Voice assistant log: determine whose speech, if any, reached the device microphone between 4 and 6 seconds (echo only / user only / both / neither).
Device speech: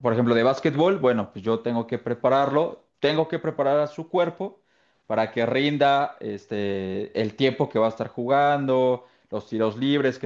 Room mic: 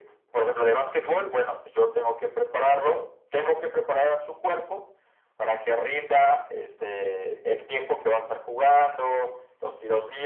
echo only